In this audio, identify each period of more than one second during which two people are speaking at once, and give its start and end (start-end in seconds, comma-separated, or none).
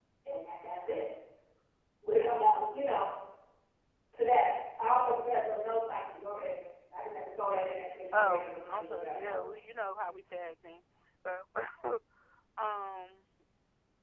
8.1-9.4